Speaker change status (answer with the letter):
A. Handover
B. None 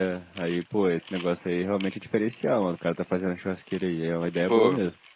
A